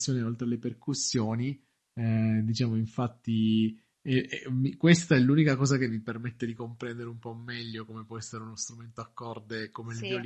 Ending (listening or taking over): listening